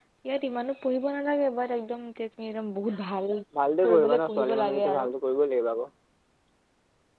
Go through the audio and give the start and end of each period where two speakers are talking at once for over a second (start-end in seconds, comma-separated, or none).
3.9-5.1